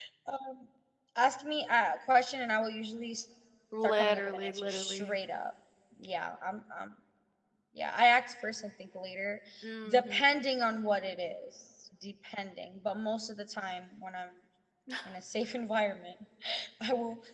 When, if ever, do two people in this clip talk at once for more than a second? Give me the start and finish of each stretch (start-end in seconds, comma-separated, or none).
3.8-5.2